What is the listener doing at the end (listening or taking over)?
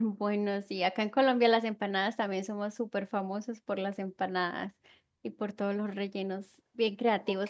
listening